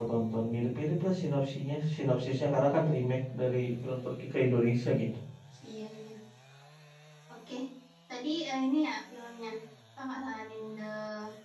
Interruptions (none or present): none